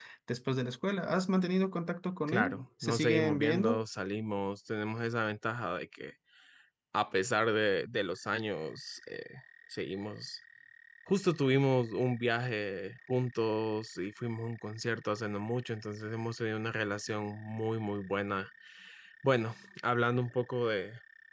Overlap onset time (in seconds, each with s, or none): 2.3 s